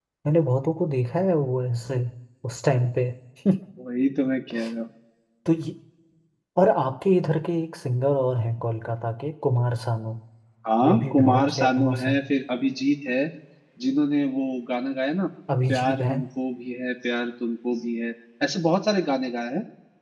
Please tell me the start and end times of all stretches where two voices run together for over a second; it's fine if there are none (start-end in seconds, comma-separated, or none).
10.8-12.2